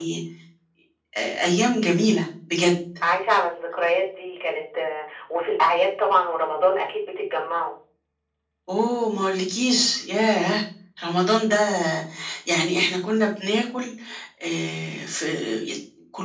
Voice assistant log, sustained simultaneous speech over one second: none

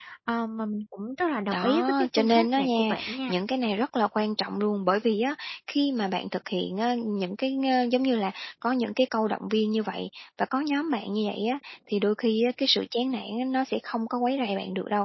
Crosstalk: present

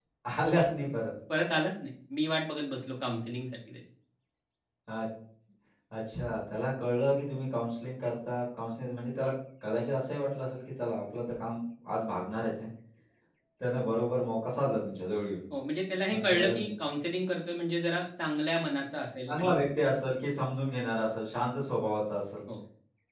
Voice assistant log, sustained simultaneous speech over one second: none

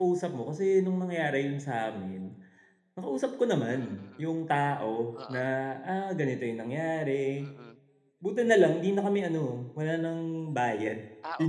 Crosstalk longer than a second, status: none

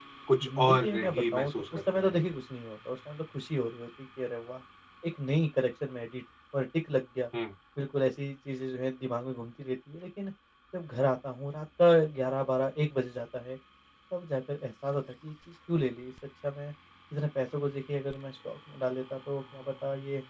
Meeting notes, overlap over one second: present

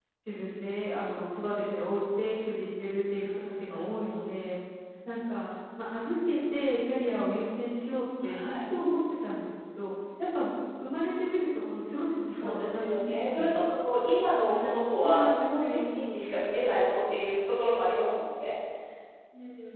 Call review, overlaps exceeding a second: present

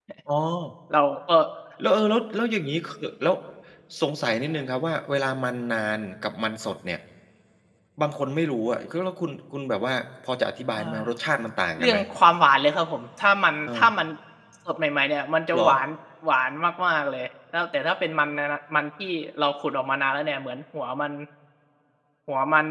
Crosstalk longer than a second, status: none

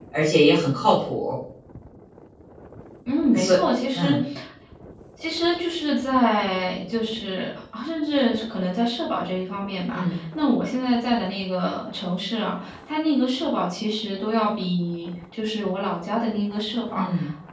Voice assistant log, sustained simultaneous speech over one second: none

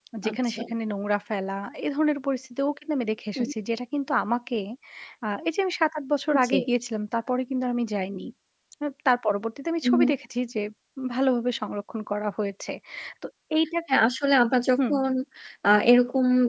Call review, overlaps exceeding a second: none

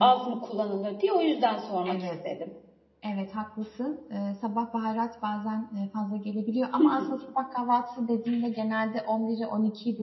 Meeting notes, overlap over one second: none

